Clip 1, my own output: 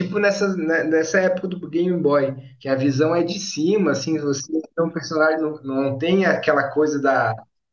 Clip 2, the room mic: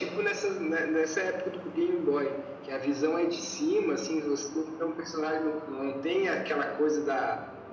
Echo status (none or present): present